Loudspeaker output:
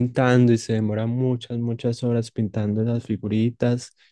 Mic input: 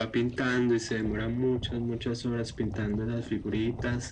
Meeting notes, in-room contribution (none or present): none